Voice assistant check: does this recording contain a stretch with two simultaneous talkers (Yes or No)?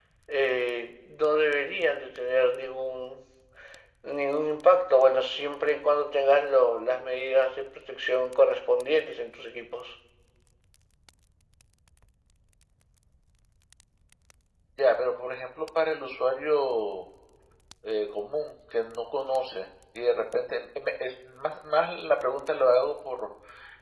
No